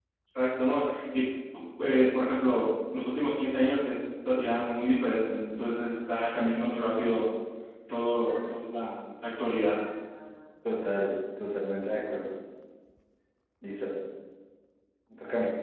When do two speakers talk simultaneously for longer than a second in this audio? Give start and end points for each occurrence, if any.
none

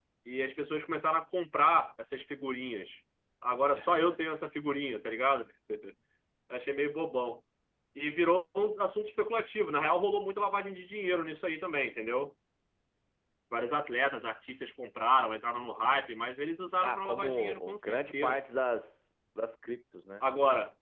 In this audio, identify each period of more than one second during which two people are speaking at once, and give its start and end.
16.8-18.4

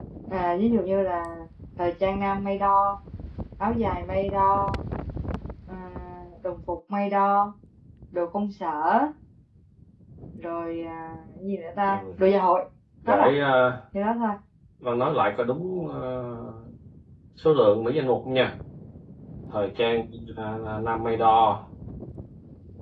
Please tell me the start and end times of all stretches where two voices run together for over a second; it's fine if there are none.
none

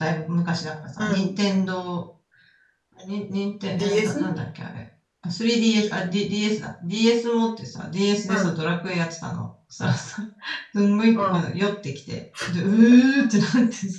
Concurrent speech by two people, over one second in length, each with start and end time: none

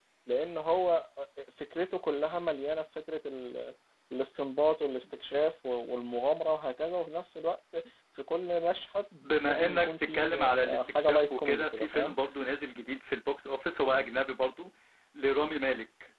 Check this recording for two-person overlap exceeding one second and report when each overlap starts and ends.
9.2-12.1

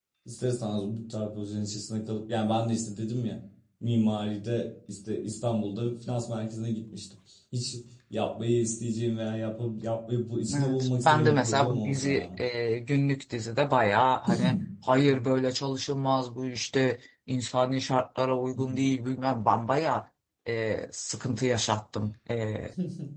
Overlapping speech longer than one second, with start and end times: 10.5-12.3

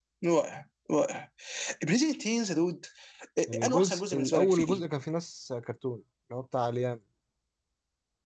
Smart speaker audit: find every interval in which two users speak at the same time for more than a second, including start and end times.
3.5-4.8

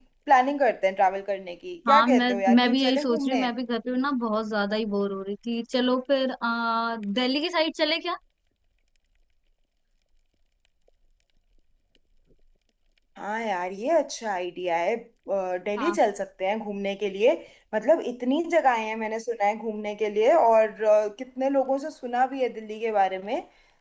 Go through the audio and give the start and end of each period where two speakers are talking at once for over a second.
1.9-3.5

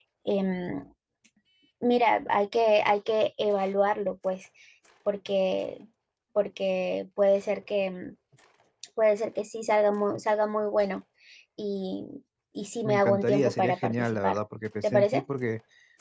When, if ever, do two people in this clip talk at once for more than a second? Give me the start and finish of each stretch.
12.8-14.4

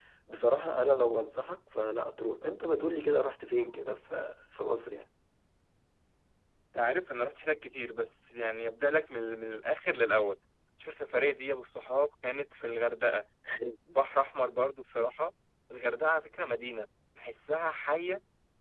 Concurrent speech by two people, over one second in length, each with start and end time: none

